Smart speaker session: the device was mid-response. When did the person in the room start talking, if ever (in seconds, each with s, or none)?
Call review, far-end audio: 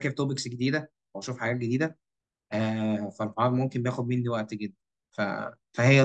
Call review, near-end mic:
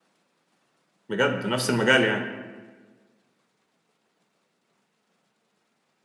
1.1 s